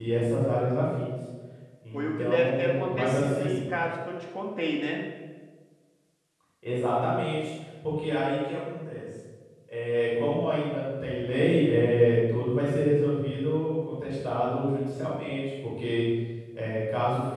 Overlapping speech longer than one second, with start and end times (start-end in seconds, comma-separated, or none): 1.9-3.6